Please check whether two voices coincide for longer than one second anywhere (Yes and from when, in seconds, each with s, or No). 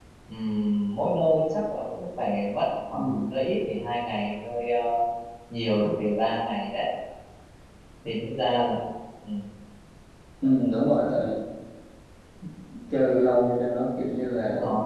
No